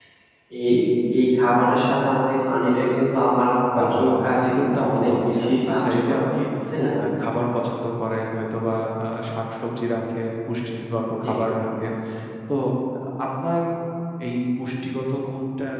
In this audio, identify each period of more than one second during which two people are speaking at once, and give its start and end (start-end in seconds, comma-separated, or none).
3.8-6.2